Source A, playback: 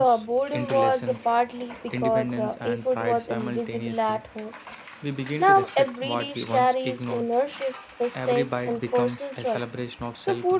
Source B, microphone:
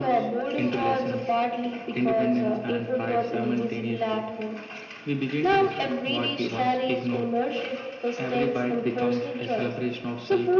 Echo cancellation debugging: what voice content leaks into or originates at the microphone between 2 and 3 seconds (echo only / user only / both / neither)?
echo only